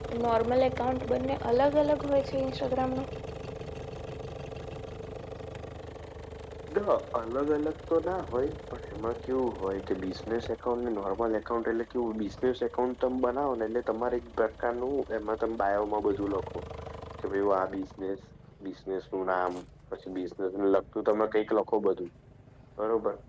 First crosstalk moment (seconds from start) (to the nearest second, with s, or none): none